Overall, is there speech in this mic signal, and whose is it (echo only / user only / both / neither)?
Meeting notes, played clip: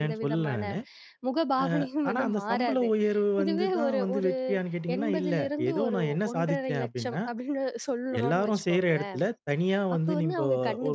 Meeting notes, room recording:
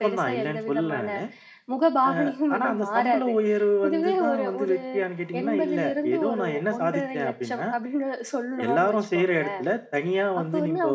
echo only